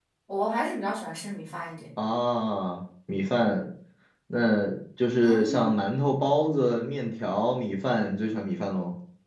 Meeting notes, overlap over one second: none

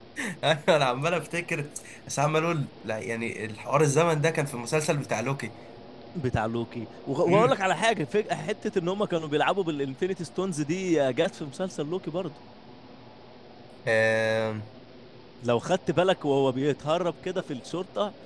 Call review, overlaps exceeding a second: none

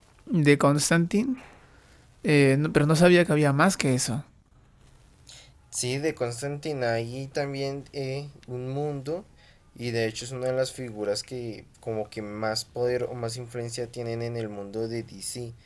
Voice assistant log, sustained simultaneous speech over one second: none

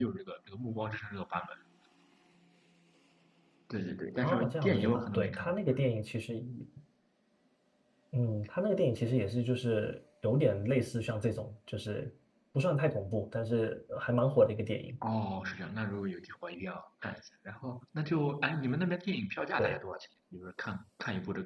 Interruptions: present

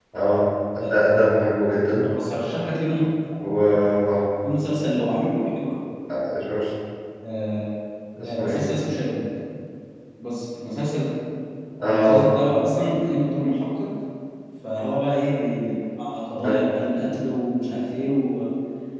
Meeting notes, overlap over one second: none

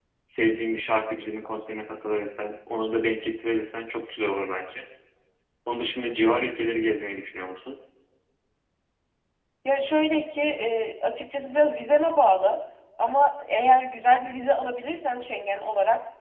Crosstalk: none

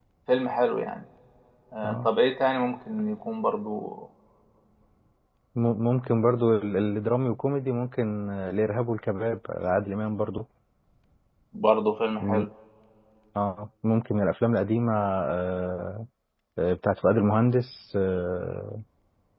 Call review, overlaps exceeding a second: none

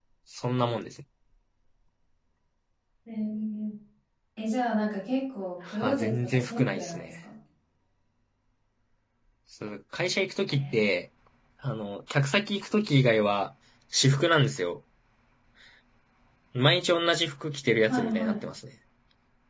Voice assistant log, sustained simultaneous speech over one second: present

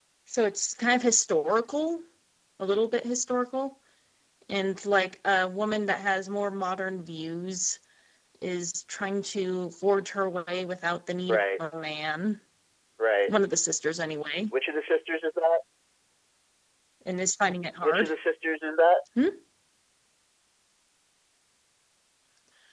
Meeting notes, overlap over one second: none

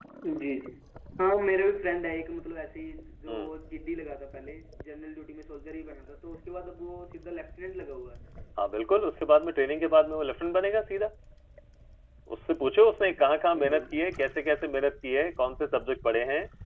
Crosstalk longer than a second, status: none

